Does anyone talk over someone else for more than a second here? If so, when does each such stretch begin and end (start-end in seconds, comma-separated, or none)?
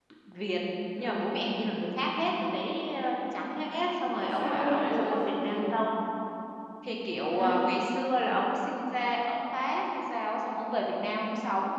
4.2-5.6